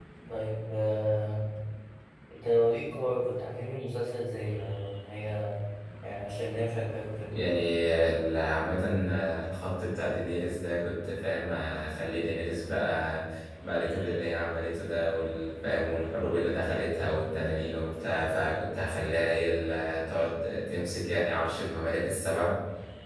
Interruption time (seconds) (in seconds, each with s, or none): none